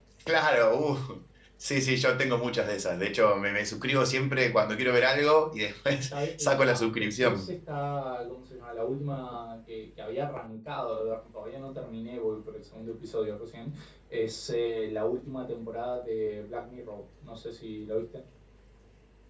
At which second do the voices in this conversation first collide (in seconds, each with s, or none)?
6.1 s